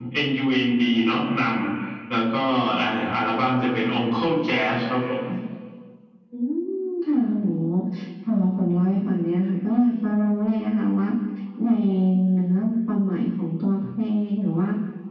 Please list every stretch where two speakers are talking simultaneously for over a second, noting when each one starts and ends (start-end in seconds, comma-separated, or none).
none